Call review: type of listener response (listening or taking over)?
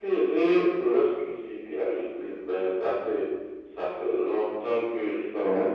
listening